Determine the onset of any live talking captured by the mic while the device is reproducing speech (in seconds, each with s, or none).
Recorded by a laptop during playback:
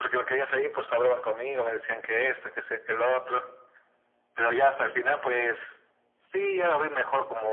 none